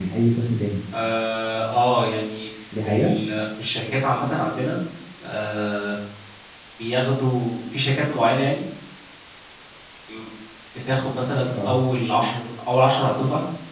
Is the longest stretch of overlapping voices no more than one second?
Yes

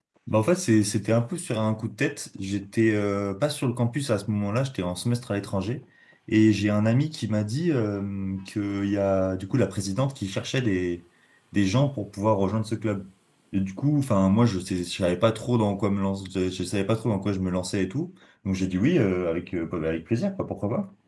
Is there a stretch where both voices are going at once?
No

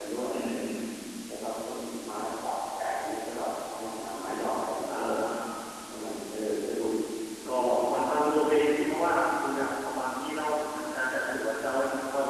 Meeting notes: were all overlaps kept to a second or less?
Yes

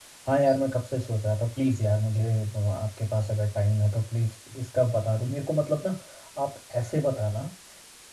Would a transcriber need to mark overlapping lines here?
No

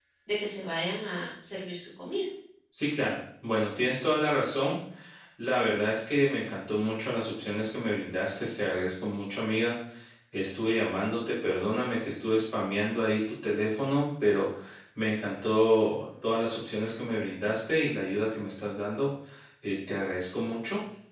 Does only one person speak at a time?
Yes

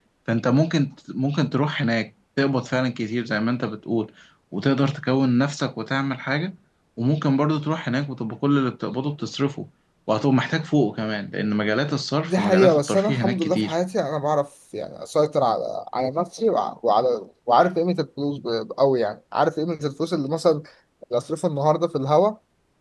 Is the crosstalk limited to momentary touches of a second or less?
No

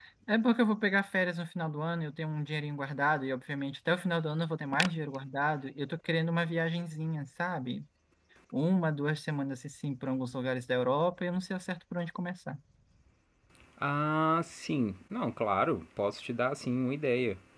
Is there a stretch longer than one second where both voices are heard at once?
No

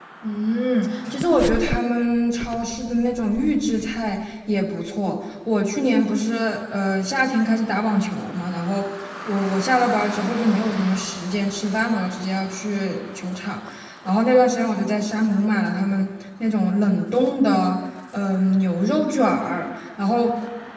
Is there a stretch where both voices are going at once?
No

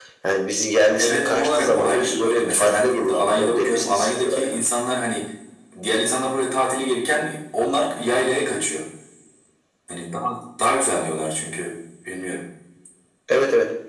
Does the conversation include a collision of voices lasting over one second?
Yes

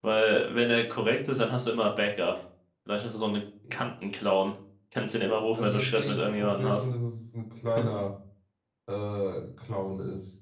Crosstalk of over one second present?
Yes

